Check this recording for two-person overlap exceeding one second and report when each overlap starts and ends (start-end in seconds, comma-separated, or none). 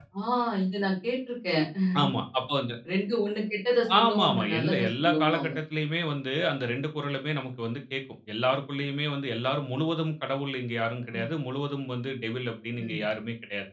4.0-5.5